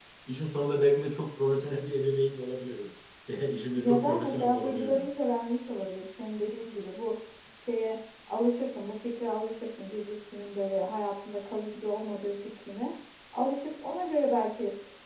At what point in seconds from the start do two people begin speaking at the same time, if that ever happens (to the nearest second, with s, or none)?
4 s